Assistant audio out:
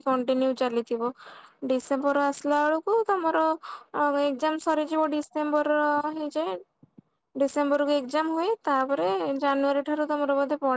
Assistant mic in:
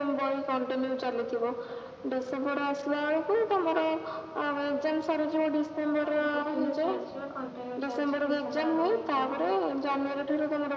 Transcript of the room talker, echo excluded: ନାଇଁ ସେକେଣ୍ଡିଇୟର ଚାଲିଛି। ବା କଣ୍ଟିନ୍ୟୁ ଚାଲିଛି ଡିସେମ୍ବର ଆଡକୁ ଏକ୍ଜାମ ହବ।

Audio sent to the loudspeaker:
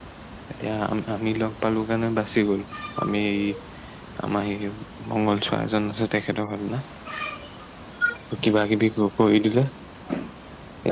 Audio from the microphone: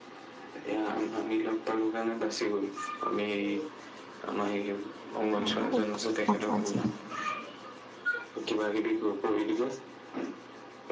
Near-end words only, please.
মৰিব দেই কত পজ

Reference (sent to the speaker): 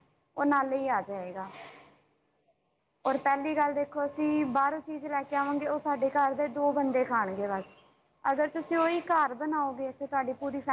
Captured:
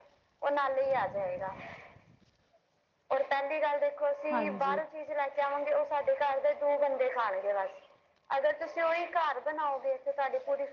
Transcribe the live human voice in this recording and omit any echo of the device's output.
ਹਾਂਜੀ

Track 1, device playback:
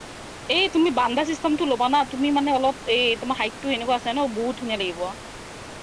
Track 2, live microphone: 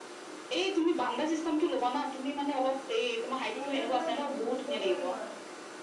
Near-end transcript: এনেকে তোমাৰ বহুত, তিনিশ কৰি লয়,

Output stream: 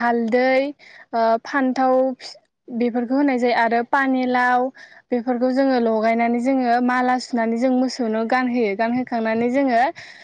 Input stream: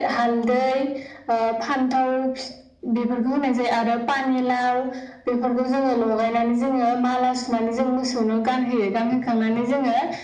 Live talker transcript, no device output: none

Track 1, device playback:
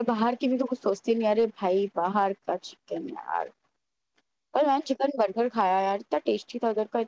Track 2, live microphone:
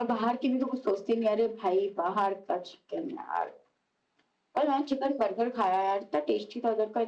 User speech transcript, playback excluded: none

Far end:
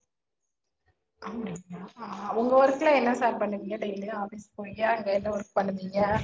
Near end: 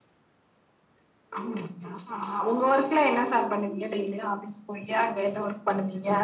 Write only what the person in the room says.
none

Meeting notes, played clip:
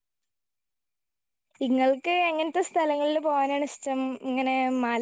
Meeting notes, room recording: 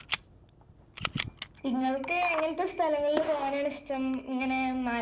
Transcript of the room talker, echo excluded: none

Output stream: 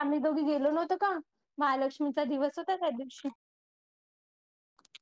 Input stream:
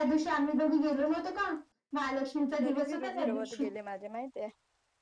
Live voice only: कितीतरी झिरो झिरो वर गेले माझे माहितय

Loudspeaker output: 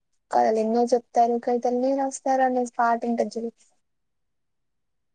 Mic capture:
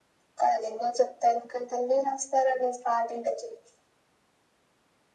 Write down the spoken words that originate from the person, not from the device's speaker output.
none

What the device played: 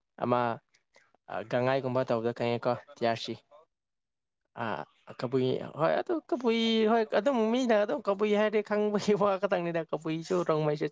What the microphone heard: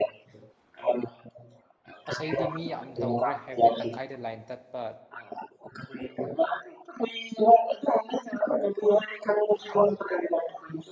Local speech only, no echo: ꯑꯁ ꯑꯩꯗꯤ ꯃꯤ ꯌꯥꯝ ꯇꯧꯈ꯭ꯔꯦ ꯍꯥꯏꯕꯗꯤ ꯇꯪꯈꯥꯏꯗ ꯂꯥꯏꯟ ꯇꯠꯄ

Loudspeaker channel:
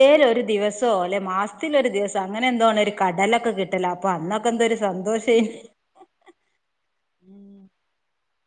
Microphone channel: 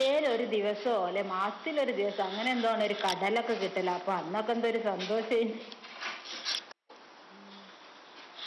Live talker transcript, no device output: none

